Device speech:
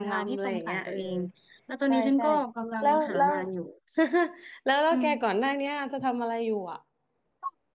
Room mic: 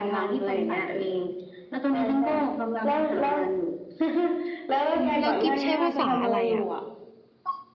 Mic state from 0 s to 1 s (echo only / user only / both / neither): echo only